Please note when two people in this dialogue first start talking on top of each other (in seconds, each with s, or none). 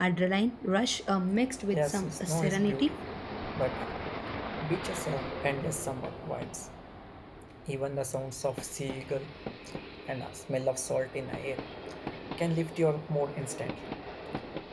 1.7 s